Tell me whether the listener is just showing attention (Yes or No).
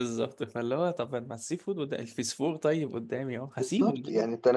No